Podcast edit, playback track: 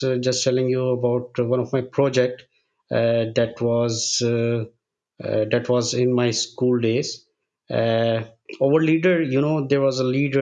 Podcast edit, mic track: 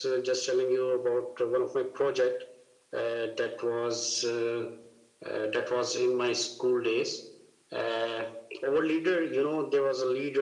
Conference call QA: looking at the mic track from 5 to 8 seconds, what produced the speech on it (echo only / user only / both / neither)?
echo only